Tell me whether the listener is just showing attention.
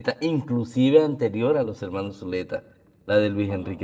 Yes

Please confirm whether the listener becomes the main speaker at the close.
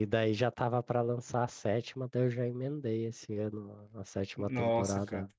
Yes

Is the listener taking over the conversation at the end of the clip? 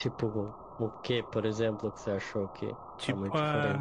Yes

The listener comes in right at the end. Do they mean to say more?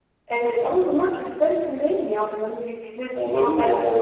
Yes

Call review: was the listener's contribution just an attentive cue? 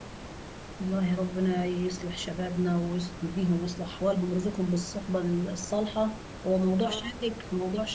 Yes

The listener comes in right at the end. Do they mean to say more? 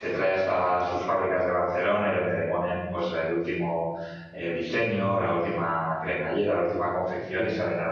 No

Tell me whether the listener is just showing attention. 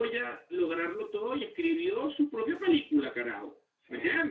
Yes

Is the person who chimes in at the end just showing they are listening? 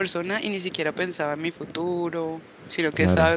Yes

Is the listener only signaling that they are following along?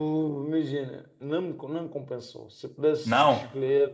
Yes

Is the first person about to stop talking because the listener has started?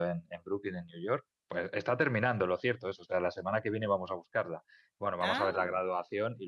No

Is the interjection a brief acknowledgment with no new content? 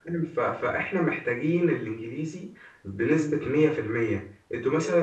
Yes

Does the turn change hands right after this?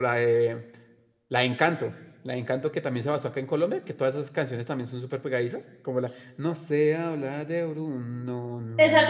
Yes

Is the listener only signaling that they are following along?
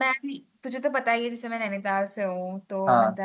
Yes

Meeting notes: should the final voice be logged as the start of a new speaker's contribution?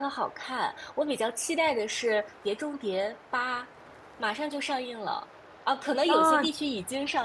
No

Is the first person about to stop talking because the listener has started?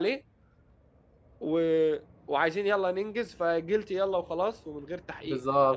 Yes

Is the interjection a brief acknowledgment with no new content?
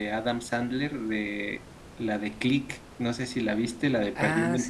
No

